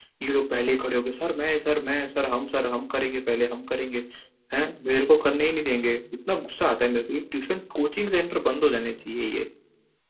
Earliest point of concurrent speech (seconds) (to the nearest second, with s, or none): none